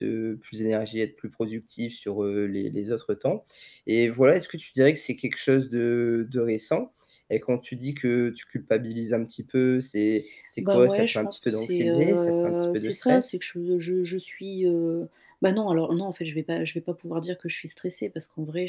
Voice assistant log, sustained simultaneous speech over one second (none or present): present